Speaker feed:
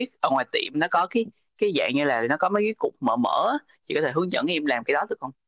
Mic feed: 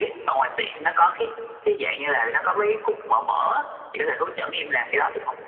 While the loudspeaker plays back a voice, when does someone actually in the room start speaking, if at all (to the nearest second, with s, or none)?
none